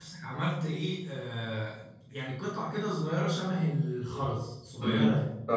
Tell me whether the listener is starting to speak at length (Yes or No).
Yes